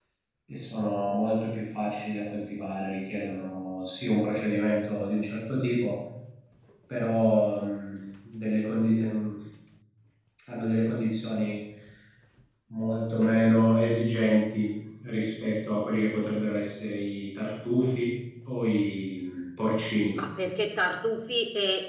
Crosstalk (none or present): none